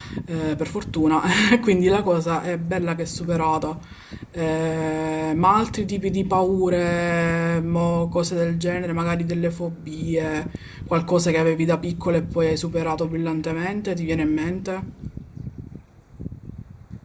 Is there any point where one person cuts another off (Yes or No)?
No